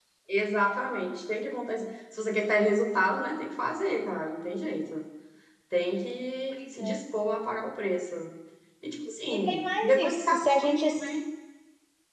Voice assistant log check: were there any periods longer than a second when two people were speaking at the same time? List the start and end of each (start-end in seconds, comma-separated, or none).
9.3-10.8